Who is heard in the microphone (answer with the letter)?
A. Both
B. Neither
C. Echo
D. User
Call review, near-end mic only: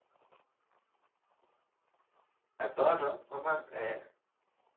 D